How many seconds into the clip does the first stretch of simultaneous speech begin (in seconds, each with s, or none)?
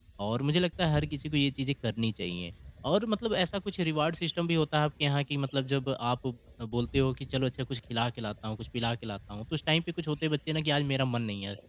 none